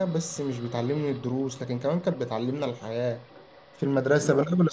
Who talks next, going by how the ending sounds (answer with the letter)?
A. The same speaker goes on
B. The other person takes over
A